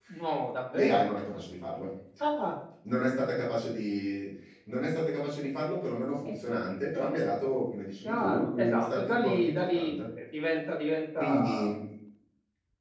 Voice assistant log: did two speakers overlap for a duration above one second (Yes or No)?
Yes